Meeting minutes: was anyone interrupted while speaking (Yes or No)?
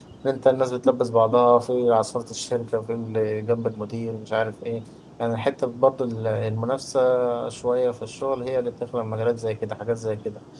No